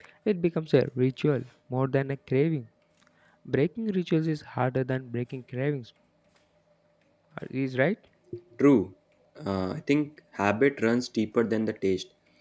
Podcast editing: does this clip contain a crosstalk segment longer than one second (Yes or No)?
No